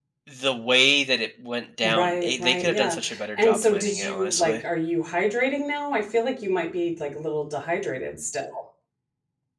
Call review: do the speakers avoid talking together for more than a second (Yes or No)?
No